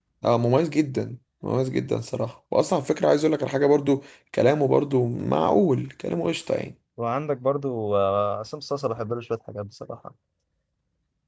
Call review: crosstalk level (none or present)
none